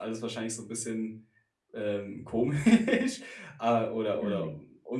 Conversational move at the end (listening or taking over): listening